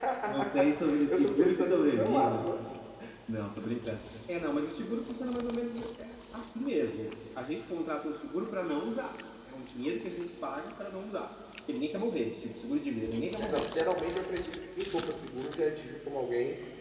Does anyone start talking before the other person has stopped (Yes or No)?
Yes